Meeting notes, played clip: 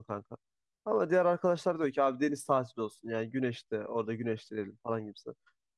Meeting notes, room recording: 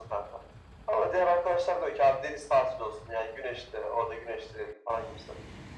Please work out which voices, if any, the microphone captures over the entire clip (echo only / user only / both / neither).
echo only